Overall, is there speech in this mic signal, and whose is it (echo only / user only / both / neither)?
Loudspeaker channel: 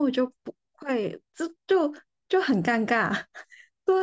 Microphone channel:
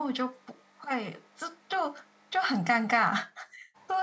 echo only